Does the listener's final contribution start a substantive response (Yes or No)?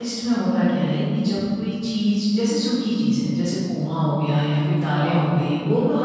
No